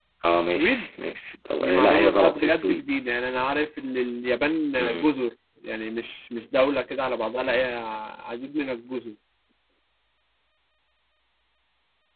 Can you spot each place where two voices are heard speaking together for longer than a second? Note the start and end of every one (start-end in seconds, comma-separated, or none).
1.6-2.9